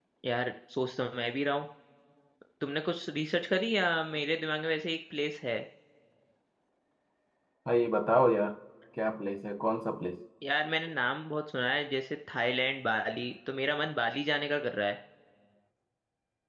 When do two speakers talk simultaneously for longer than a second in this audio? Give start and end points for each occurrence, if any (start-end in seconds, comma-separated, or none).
none